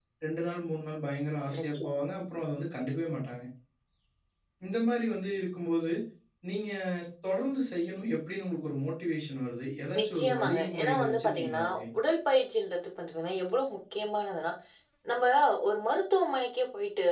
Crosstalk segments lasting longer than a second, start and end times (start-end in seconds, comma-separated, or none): 10.0-11.6